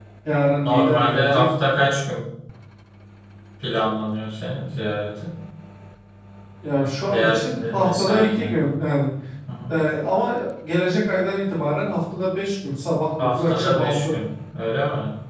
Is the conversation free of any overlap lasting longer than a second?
No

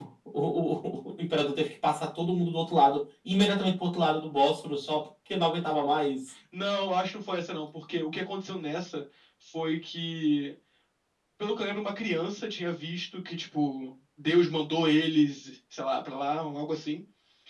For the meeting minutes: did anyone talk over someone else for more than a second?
No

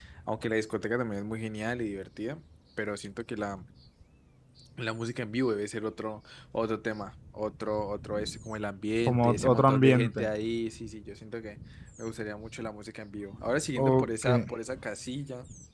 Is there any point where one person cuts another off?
Yes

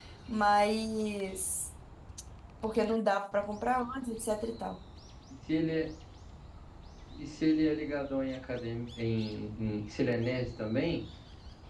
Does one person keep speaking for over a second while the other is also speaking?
No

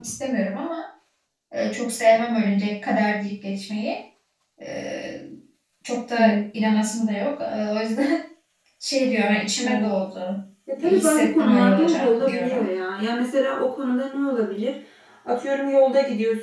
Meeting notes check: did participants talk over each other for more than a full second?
Yes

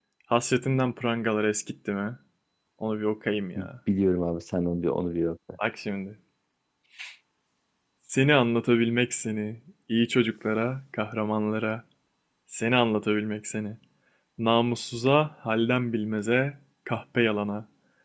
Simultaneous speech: No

